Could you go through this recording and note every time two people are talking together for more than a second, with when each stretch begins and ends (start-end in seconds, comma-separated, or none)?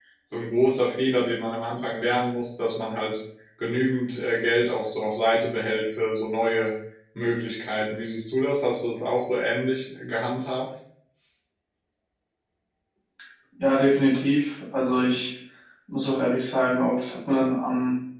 none